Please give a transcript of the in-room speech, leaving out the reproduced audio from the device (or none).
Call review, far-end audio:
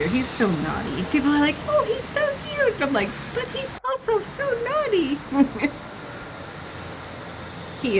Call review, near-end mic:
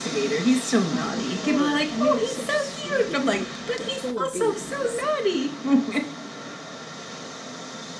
Oh, for sure. And they were such sweeties, like the whole babies.